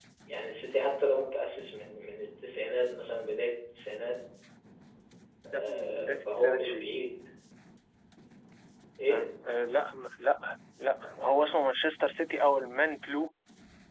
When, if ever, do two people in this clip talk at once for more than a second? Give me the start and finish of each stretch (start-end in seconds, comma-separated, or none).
5.5-7.0